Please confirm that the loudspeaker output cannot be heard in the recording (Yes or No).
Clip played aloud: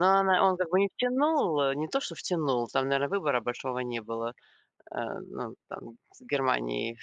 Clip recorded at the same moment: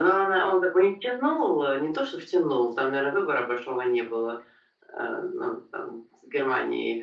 No